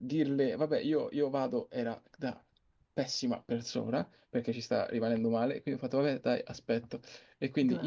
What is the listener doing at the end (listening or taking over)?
listening